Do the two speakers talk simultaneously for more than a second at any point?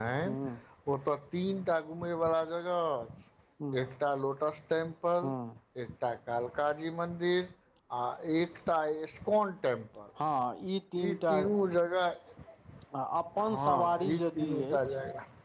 Yes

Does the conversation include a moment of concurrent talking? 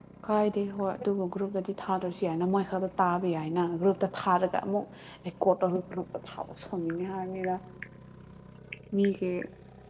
No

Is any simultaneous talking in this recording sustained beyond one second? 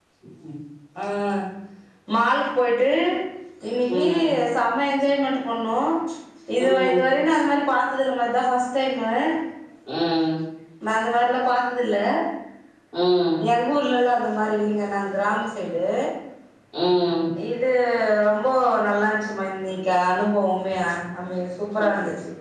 No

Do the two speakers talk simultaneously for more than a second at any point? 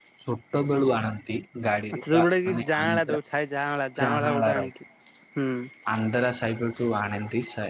Yes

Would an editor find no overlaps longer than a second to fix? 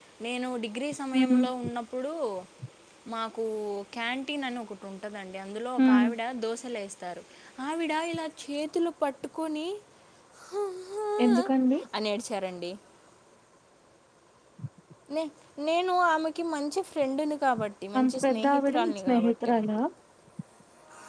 No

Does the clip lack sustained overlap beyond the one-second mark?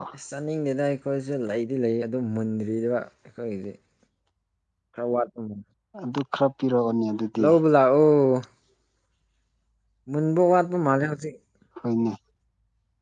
Yes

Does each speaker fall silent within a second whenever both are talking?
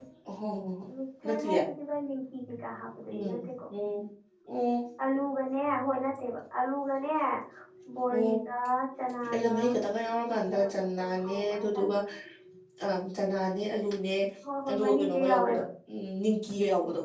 No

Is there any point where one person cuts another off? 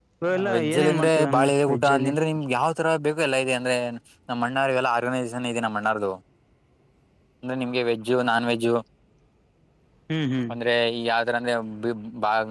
Yes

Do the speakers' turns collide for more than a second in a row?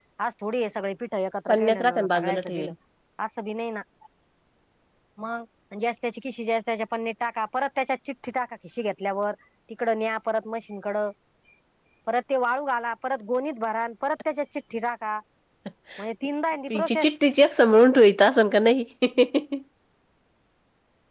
Yes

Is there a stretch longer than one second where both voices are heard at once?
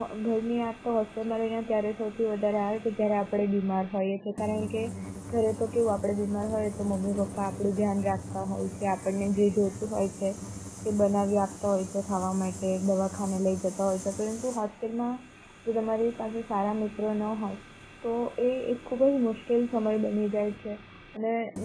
No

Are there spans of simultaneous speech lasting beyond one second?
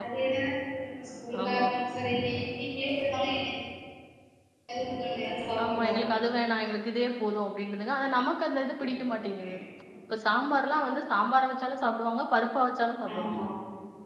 No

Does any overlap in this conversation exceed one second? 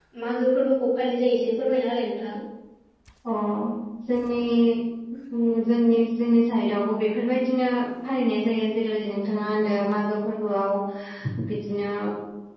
No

